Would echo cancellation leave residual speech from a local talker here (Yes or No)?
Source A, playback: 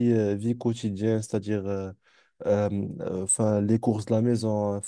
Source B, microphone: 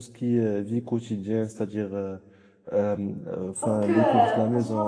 Yes